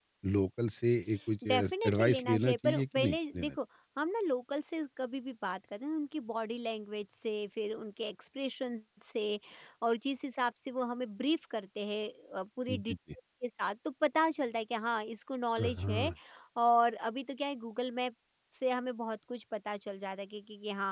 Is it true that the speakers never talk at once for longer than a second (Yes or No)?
No